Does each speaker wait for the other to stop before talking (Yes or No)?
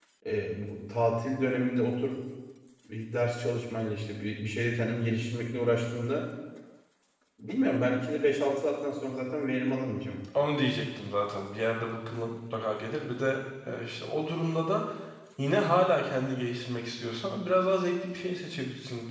Yes